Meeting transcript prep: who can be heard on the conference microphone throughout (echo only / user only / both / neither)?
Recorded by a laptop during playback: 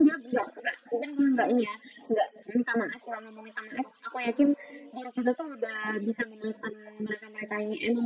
echo only